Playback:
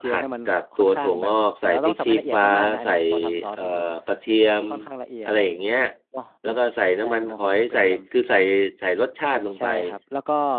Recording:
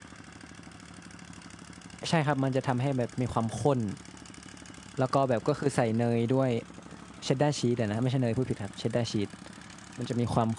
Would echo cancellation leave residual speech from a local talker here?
Yes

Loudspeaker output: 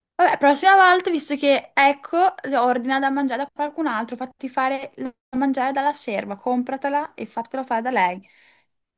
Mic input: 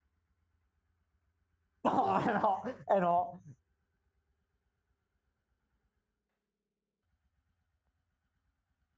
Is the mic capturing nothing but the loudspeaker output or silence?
No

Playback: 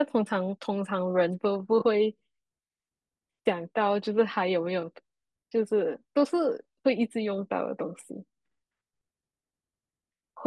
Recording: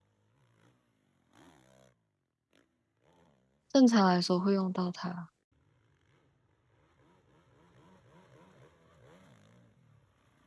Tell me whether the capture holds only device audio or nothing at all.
No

